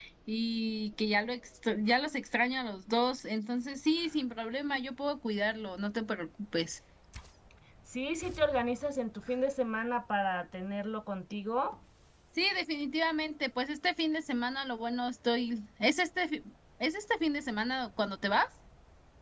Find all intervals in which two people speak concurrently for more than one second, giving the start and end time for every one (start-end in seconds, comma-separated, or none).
none